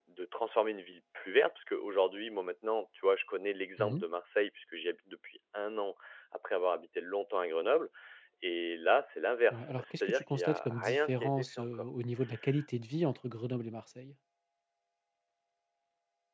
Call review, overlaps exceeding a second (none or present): present